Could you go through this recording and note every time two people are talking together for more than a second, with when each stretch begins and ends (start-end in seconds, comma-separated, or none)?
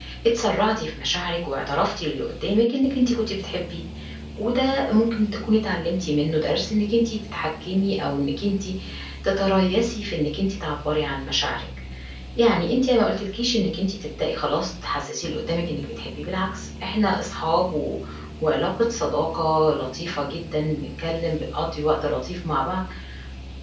none